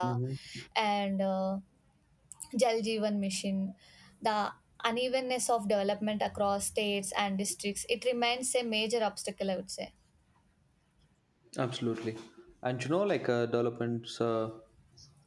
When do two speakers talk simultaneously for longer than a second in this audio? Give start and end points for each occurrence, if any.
none

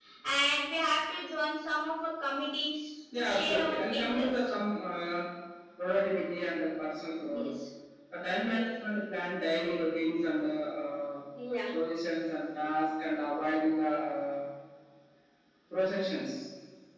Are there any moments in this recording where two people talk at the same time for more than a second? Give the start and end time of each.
3.1-4.4

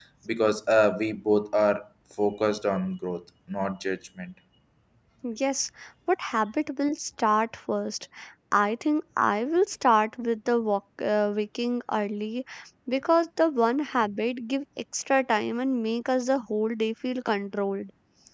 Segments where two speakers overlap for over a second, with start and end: none

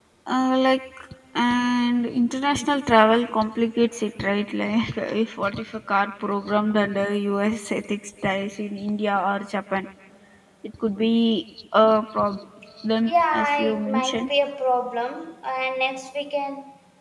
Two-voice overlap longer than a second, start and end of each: 13.1-14.3

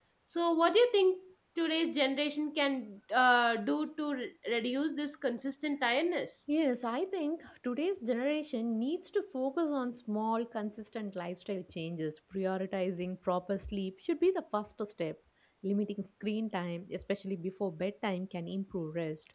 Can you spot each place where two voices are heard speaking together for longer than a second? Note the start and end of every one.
none

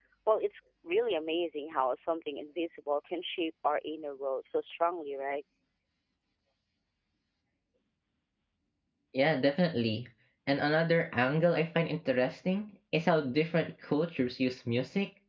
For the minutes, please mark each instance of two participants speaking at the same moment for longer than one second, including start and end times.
none

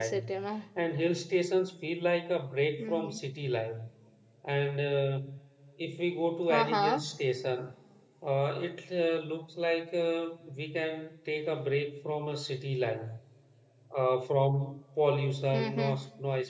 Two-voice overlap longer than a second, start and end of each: none

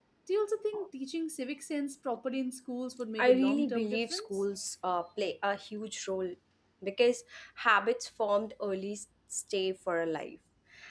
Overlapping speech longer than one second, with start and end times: 3.2-4.4

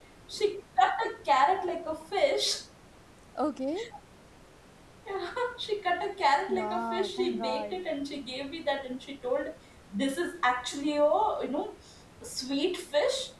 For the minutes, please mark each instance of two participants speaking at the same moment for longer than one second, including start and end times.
6.5-7.8

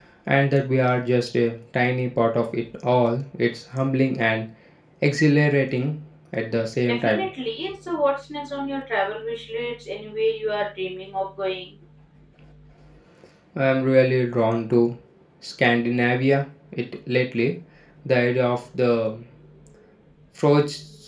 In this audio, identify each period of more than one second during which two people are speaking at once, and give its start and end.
none

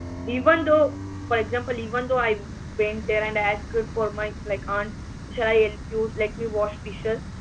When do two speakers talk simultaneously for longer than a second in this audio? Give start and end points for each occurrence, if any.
none

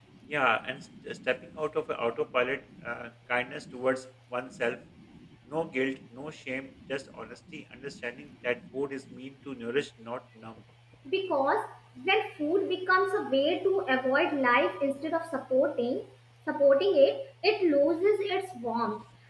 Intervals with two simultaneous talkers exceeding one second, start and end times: none

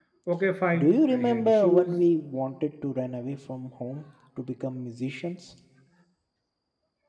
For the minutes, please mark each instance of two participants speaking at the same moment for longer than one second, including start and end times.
0.8-2.0

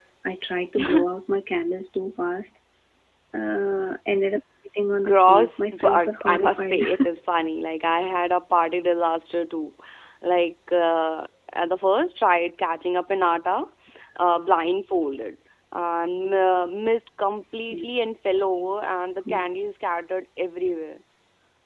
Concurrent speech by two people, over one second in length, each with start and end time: 5.0-6.8

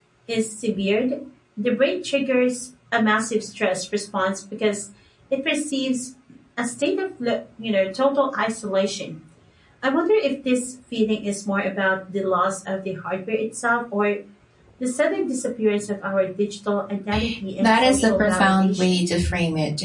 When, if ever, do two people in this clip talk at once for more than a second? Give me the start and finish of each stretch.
17.6-19.0

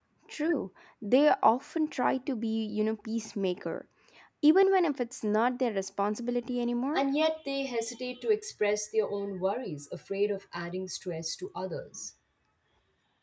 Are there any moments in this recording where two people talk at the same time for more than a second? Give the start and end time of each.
none

